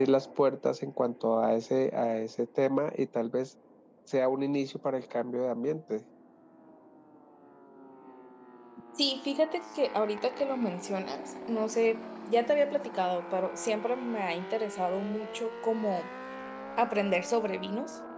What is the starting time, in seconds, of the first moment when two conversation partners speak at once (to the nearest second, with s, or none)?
none